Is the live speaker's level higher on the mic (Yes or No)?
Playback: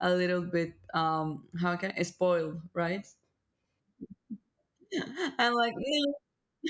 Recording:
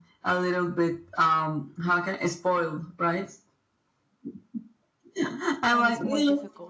No